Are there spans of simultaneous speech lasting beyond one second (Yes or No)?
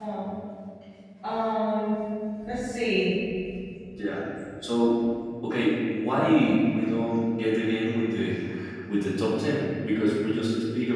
No